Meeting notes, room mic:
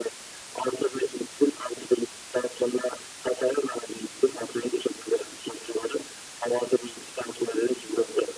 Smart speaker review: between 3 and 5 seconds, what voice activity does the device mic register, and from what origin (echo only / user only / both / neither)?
echo only